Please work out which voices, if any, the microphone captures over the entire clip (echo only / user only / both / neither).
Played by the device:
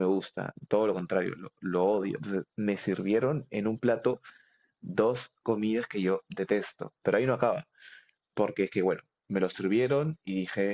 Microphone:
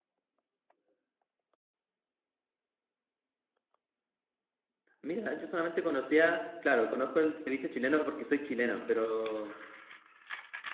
user only